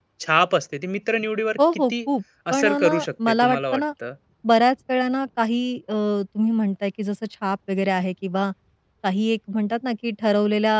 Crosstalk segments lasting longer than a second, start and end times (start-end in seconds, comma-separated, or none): 2.5-3.8